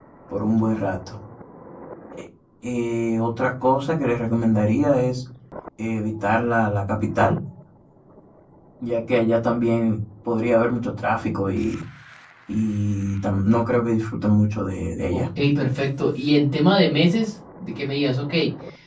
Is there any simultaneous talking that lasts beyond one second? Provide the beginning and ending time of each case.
none

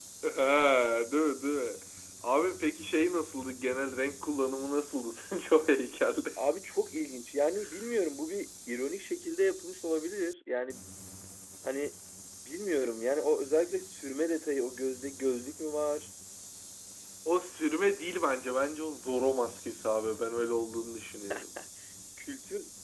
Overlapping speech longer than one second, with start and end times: none

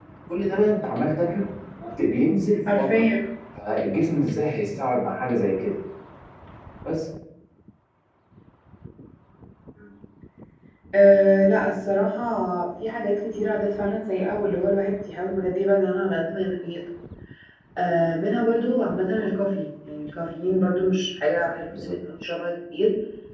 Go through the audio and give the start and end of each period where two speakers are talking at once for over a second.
none

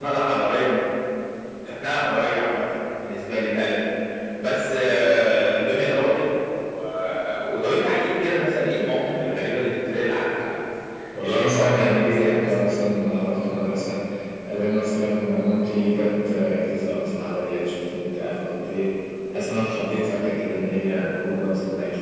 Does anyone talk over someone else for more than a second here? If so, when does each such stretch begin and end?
11.2-12.5

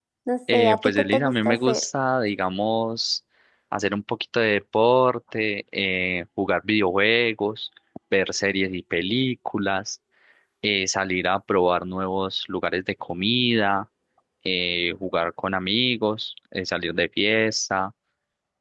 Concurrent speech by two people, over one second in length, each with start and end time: 0.5-1.8

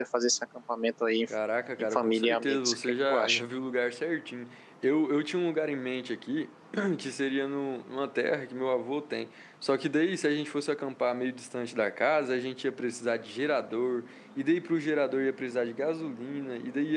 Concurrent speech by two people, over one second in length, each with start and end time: 1.8-3.4

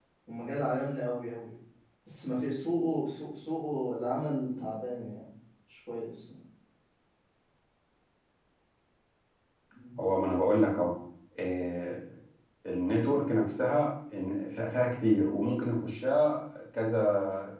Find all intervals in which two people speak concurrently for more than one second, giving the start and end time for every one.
none

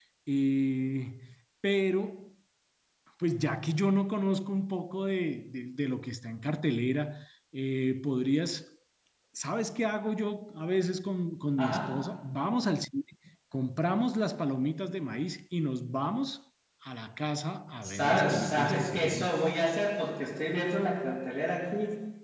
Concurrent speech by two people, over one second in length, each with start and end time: 17.8-19.3

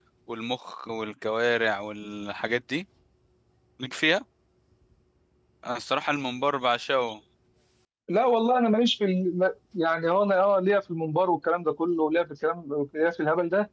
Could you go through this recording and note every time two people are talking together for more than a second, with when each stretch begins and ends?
none

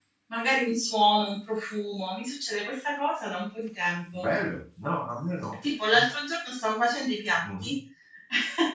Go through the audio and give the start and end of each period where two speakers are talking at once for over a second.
none

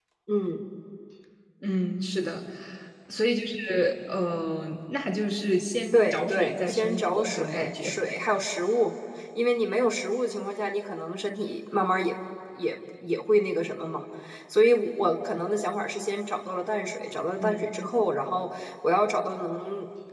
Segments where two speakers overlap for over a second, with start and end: 5.9-8.0

